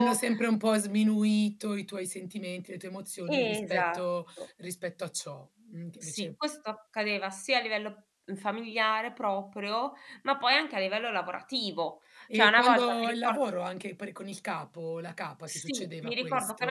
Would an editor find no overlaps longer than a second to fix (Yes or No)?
No